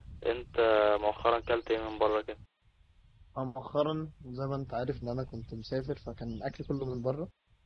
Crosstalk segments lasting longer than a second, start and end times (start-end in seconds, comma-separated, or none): none